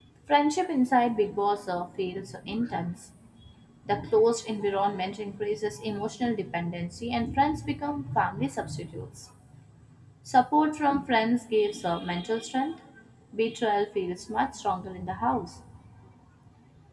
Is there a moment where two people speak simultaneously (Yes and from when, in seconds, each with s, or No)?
No